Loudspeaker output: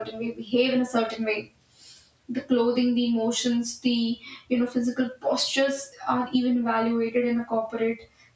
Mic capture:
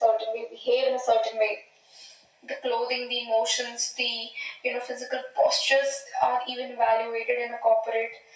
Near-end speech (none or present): none